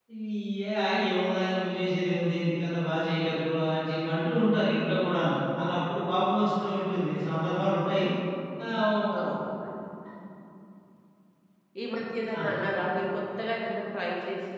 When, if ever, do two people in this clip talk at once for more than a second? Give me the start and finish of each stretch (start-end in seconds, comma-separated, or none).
none